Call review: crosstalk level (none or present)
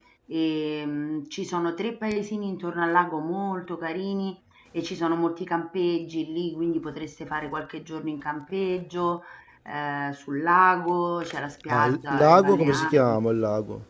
present